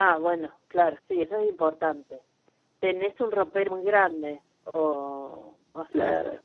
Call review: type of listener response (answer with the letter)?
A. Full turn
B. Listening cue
A